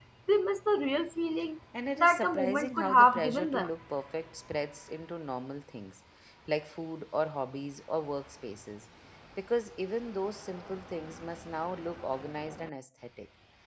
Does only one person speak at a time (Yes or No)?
No